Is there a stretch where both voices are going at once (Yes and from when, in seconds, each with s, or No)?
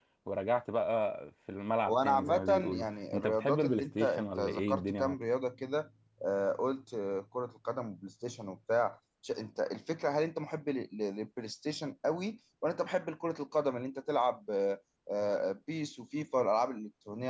Yes, from 1.9 s